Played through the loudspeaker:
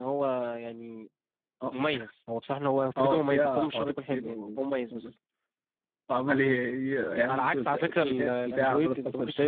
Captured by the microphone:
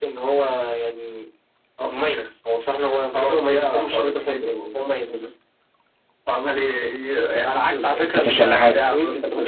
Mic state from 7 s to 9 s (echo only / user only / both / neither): both